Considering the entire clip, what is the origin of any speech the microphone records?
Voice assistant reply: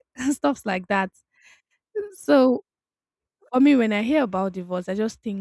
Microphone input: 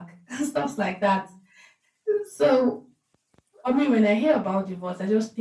echo only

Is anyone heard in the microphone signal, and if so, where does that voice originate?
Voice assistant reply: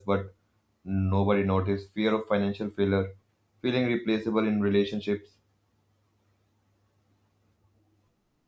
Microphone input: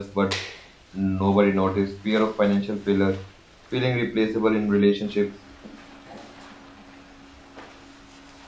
echo only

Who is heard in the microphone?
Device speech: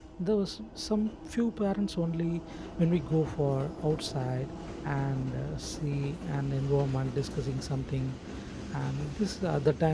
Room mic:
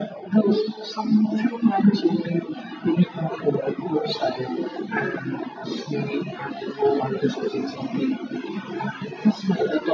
echo only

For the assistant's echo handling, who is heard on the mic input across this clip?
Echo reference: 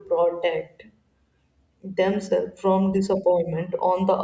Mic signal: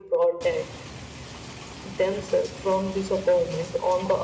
echo only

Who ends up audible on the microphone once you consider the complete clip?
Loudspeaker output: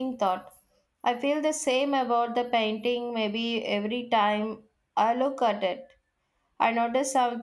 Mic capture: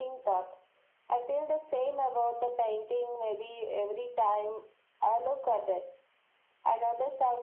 echo only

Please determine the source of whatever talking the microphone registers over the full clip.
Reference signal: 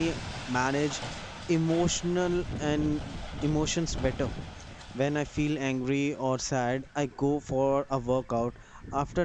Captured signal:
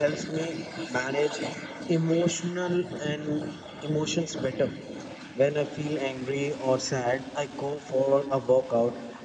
echo only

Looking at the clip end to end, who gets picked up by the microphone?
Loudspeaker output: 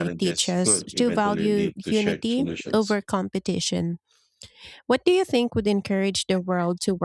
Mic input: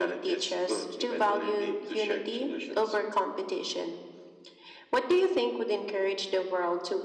echo only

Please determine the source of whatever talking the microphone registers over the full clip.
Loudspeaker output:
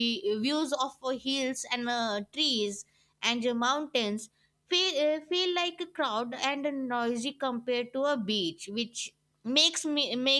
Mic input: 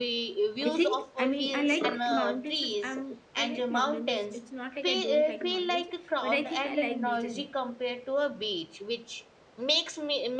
both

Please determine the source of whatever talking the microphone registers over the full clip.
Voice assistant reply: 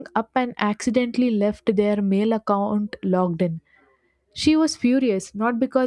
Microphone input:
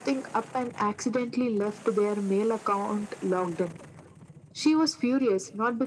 echo only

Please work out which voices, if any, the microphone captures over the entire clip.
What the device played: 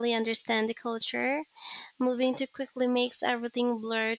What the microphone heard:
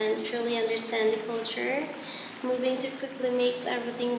echo only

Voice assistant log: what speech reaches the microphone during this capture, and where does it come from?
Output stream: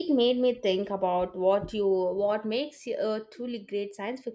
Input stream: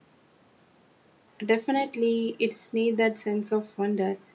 user only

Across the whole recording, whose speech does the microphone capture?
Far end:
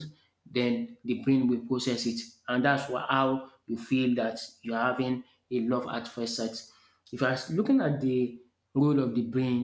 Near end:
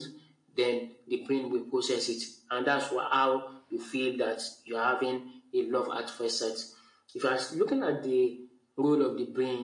echo only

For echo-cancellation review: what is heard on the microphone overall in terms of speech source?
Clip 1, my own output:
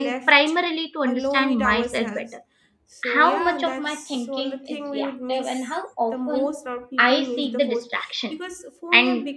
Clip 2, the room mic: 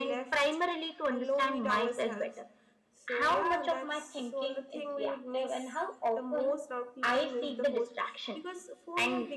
echo only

